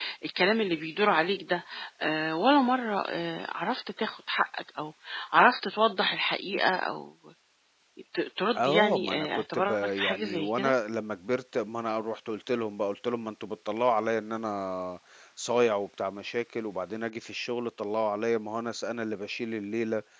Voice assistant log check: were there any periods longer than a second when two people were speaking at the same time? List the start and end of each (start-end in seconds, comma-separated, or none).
8.6-10.7